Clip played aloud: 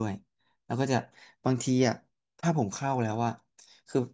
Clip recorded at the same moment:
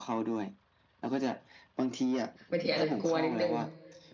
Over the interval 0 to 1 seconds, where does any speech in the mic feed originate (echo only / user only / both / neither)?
echo only